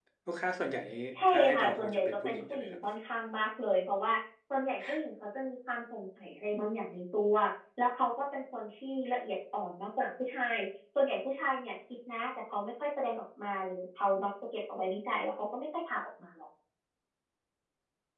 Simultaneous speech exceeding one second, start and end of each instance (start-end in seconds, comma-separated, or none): 1.3-2.8